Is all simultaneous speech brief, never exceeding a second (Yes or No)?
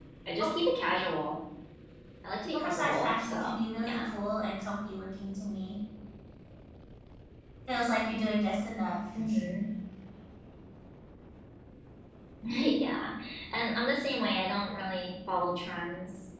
No